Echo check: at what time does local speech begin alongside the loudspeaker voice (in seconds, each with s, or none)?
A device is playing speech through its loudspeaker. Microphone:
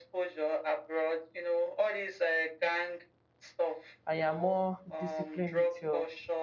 4.1 s